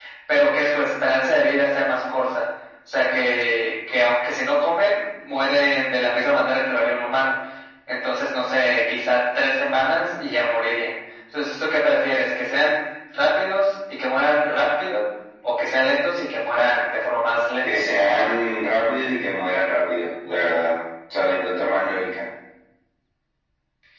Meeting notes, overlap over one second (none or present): none